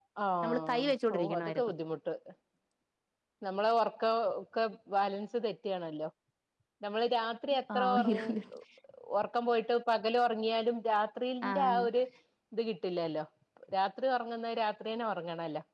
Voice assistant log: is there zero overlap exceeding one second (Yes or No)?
No